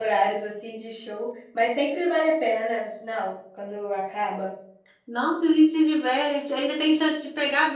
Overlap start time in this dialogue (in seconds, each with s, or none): none